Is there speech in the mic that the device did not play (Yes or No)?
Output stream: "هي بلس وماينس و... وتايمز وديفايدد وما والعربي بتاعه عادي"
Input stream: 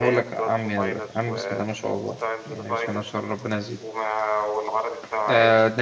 Yes